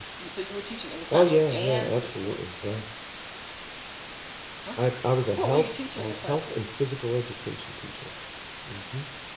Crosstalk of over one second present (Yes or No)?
Yes